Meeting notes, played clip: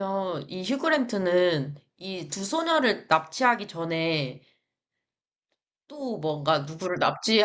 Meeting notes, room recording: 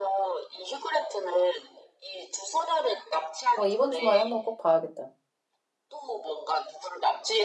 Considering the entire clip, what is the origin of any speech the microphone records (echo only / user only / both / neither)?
both